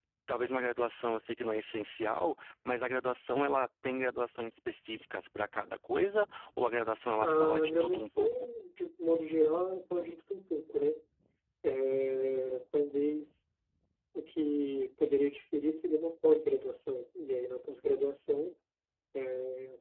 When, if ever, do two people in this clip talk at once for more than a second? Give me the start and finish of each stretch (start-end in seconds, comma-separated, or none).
7.2-8.5